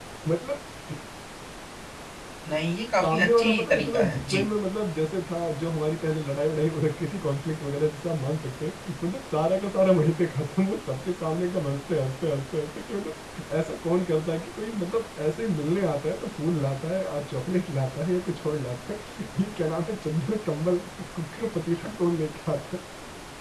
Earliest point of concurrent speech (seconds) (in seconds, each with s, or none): 3.0 s